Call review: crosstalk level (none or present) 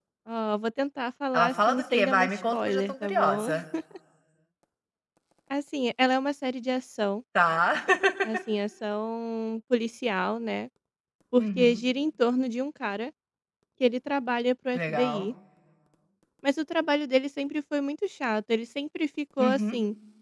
present